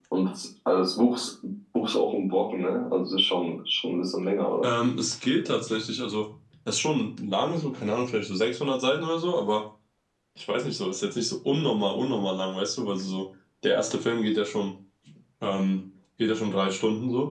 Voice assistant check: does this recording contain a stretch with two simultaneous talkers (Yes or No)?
No